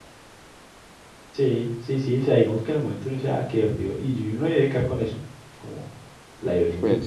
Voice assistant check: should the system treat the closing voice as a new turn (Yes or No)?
No